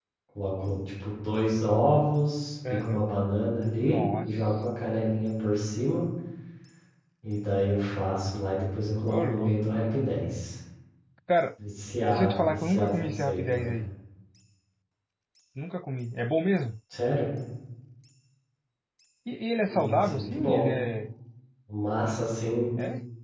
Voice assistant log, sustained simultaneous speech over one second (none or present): present